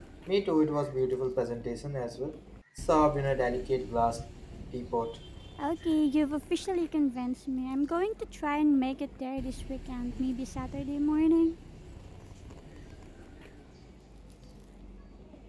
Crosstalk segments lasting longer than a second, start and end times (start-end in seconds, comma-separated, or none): none